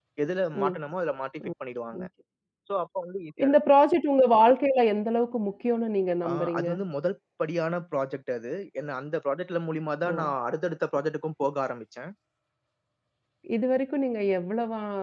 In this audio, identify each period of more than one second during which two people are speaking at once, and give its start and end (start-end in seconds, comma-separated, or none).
none